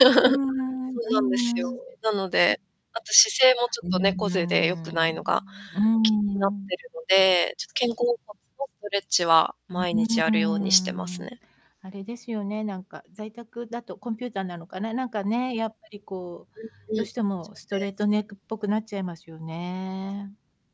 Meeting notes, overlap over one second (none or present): present